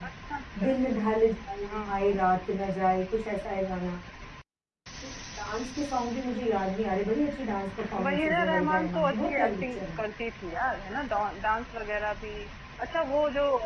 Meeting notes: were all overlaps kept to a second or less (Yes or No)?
No